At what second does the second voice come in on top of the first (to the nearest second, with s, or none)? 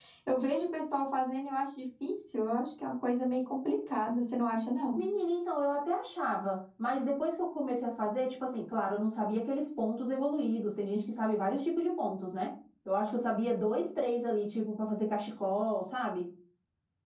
none